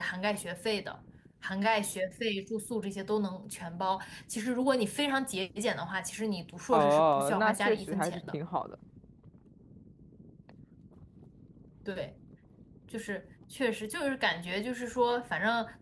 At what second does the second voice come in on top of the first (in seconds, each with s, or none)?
6.7 s